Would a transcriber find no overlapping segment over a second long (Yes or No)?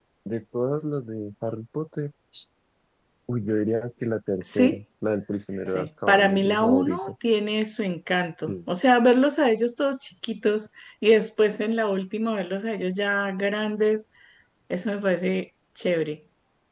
No